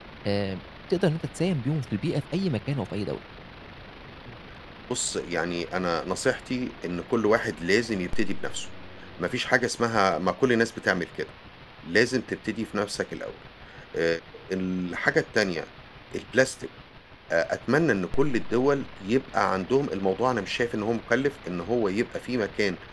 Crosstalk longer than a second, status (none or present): none